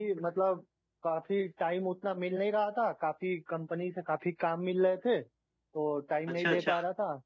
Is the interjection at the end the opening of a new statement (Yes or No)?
No